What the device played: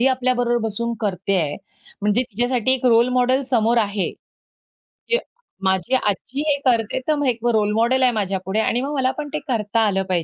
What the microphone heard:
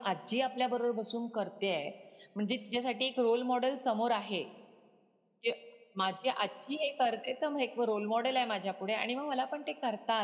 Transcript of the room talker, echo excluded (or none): none